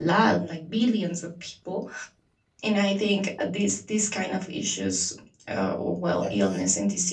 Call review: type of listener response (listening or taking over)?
listening